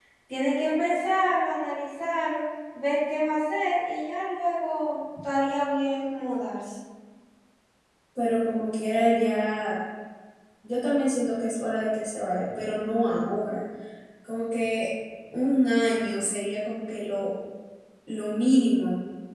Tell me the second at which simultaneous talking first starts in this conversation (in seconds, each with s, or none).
none